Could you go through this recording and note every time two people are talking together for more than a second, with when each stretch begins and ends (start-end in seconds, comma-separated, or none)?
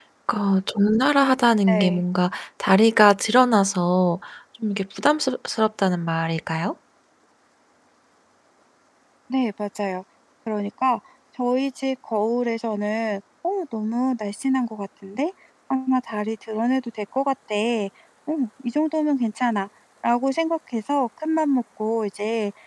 none